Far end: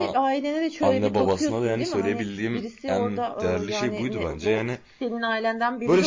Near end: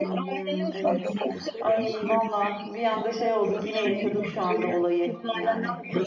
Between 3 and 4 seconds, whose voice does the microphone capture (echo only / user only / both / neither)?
both